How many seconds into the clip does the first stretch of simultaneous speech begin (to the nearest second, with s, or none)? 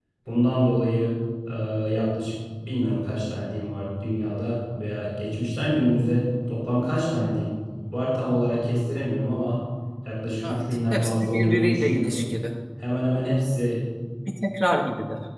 10 s